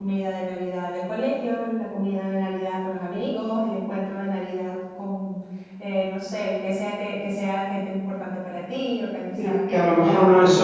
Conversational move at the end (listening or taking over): taking over